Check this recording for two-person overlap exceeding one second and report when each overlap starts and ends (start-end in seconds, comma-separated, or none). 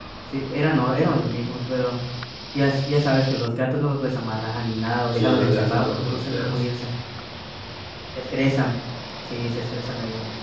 5.1-6.6